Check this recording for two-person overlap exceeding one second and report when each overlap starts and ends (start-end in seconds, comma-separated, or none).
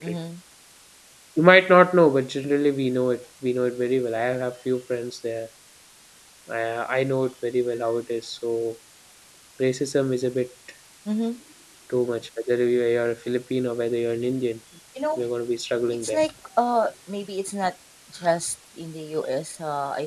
none